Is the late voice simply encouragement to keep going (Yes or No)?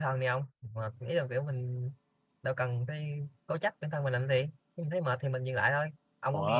Yes